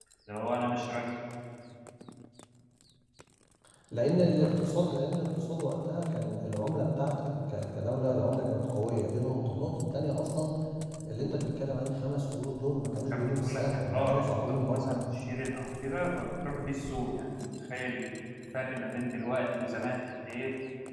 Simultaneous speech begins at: 13.1 s

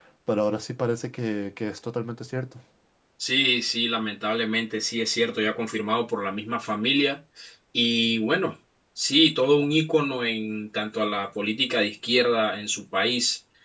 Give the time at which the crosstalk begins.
none

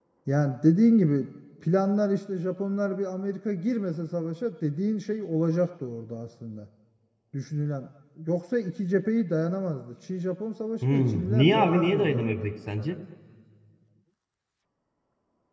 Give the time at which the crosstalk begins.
10.8 s

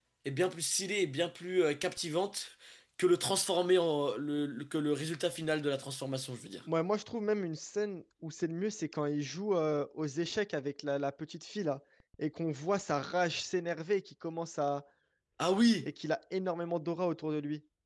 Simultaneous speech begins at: none

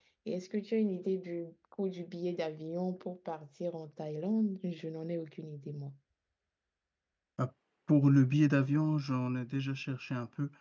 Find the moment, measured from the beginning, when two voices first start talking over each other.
none

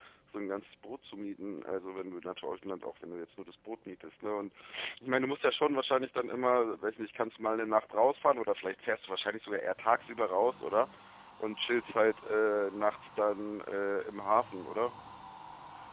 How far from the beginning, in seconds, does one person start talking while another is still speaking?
none

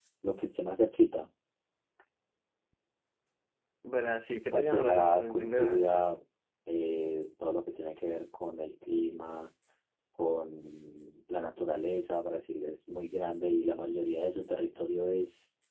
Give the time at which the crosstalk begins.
4.5 s

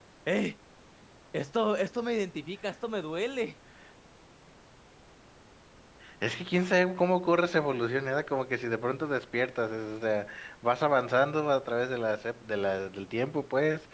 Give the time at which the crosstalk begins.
none

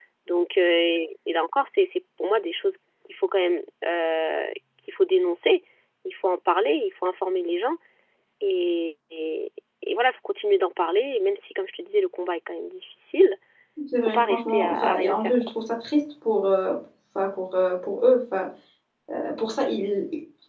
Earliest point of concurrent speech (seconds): 14.1 s

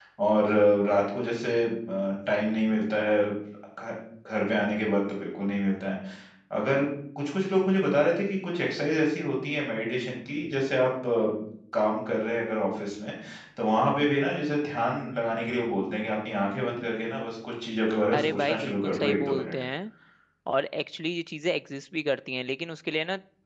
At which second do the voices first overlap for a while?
18.1 s

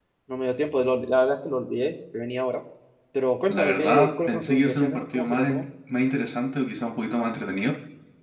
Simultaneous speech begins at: 3.5 s

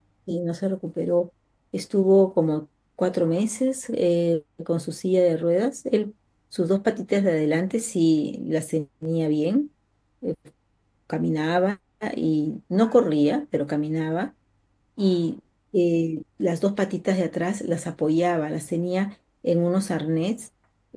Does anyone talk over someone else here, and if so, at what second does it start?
none

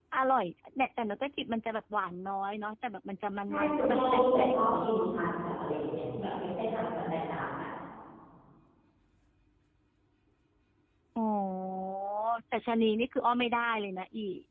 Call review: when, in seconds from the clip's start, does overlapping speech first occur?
3.5 s

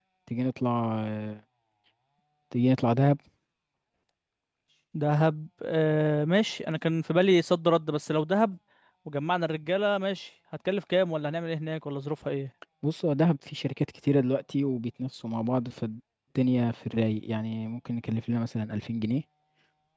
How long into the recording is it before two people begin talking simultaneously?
none

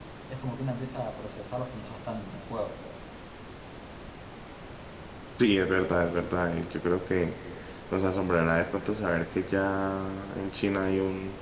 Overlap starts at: none

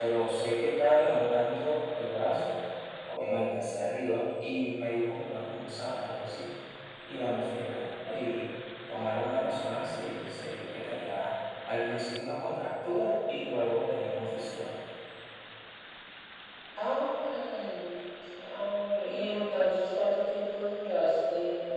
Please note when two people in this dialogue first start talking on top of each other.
none

